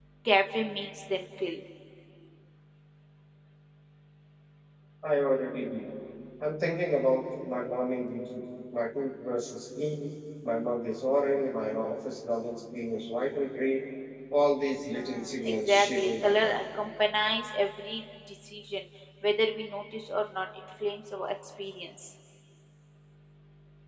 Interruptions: present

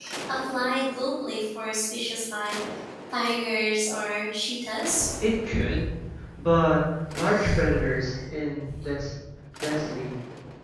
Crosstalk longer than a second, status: none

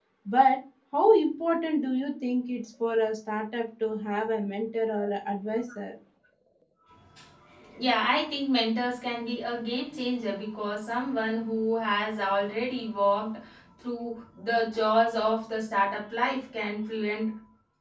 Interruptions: none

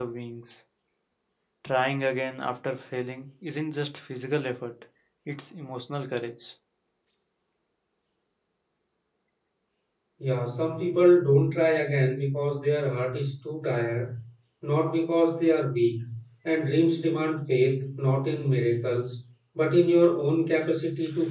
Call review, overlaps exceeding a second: none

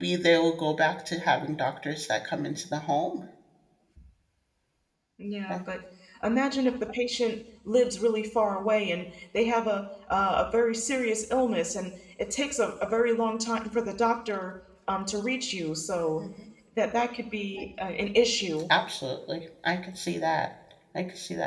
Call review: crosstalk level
none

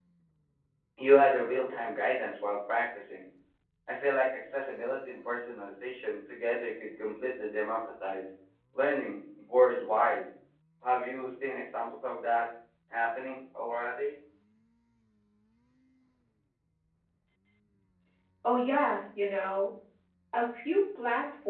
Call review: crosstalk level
none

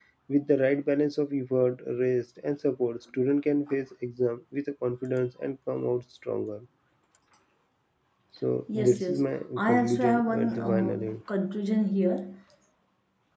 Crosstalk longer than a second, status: present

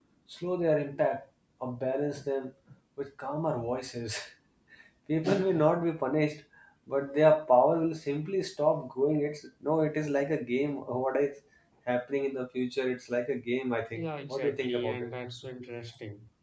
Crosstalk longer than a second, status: present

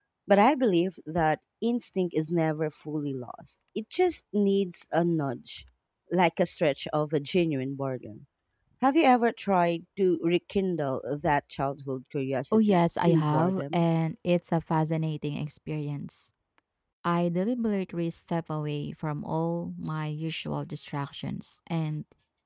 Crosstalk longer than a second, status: present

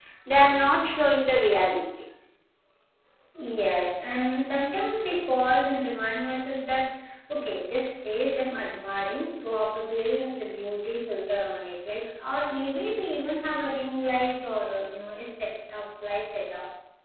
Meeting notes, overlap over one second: none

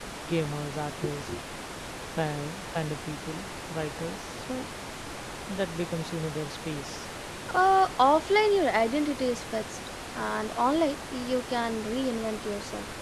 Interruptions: none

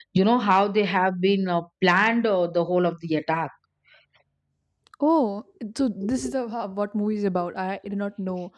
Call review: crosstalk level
none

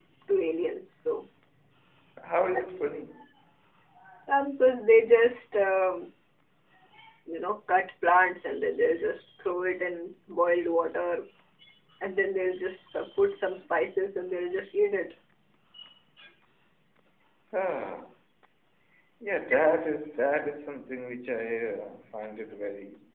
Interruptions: none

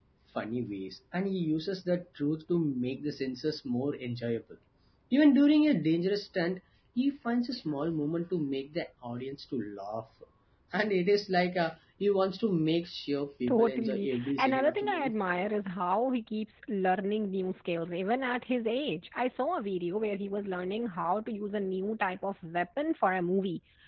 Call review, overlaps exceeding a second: present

